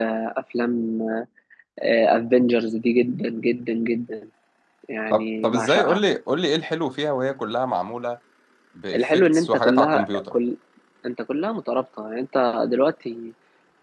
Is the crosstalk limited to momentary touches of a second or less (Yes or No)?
No